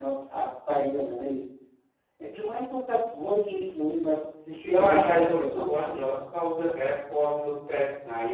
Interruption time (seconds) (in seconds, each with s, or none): 4.6 s